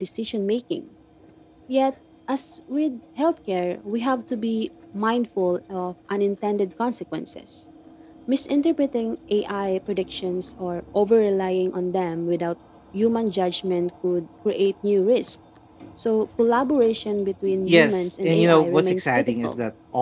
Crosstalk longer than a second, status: present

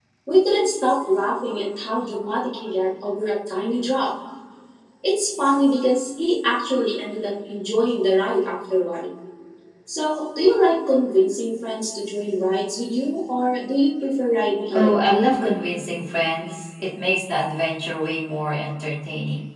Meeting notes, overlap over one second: none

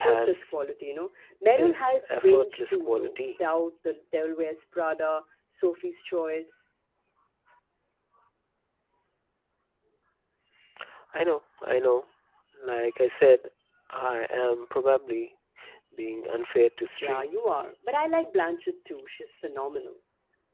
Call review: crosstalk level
present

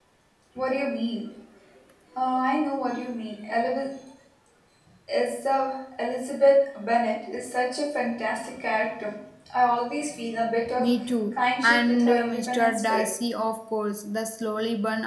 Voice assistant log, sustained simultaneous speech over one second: present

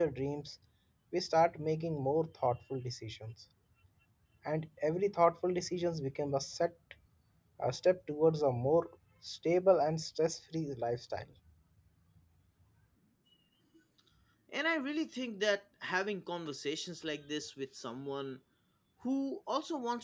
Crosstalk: none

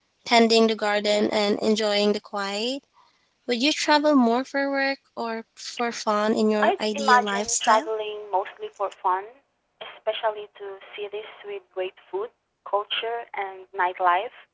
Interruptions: present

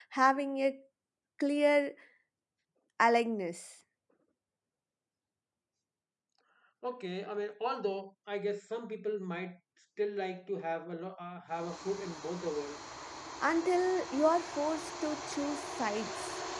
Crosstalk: none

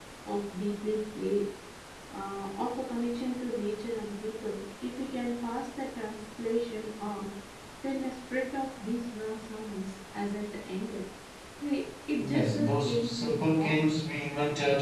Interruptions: present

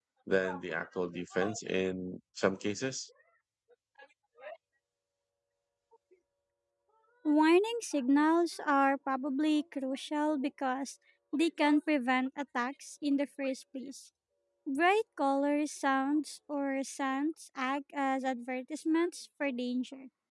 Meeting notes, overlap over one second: none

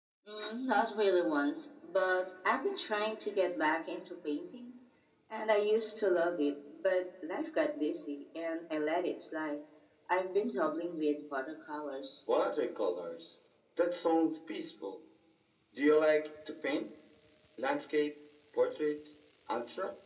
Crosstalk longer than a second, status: none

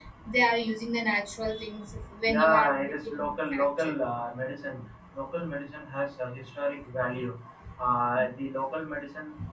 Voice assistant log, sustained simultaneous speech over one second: present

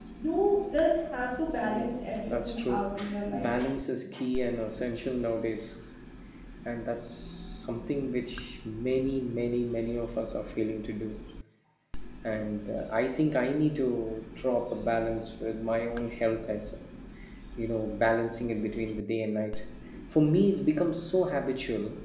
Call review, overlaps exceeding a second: present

